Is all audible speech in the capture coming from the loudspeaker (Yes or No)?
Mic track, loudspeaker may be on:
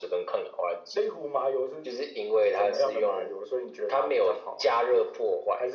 Yes